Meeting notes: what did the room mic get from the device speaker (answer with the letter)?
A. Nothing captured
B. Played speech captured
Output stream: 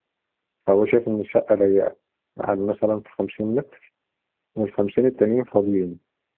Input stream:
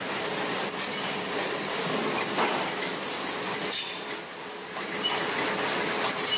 A